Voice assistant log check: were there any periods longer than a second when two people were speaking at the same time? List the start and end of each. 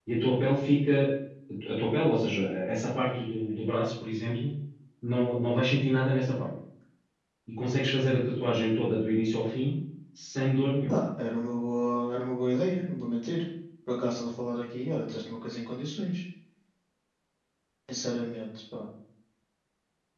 none

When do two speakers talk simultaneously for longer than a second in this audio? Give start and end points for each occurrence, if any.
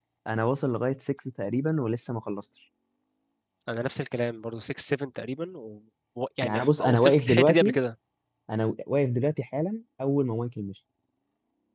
6.4-7.8

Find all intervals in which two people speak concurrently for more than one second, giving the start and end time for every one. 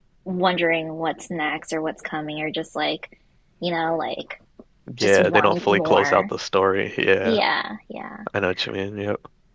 5.0-6.2

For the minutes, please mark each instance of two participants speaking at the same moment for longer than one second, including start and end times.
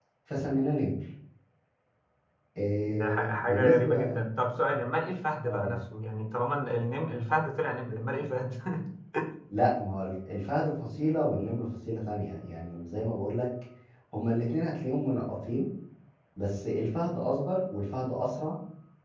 2.8-4.2

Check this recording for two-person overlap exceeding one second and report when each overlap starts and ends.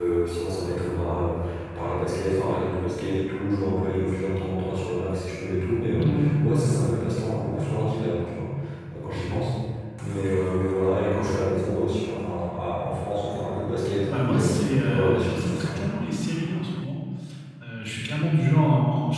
14.1-15.8

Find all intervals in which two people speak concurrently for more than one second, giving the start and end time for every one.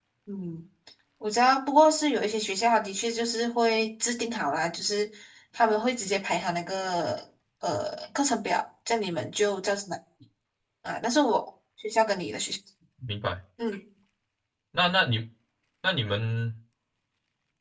none

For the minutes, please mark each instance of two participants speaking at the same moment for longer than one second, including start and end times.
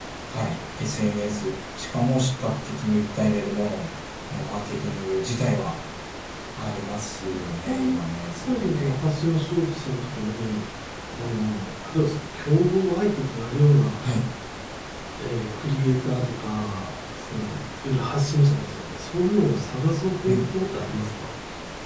none

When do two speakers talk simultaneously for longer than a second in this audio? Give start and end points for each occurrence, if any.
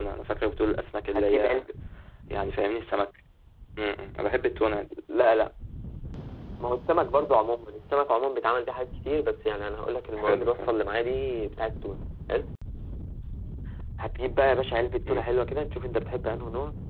none

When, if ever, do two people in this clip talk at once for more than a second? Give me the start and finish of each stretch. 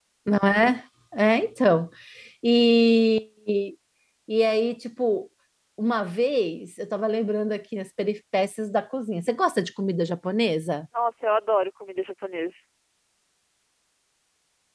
none

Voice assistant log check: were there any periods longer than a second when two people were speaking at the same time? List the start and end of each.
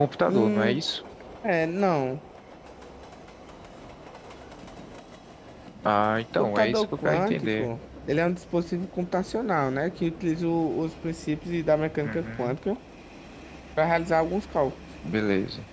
6.4-7.7

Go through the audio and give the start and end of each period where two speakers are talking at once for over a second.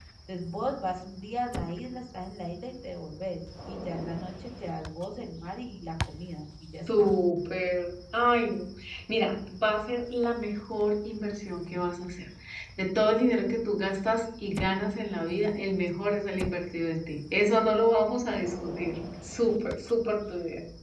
none

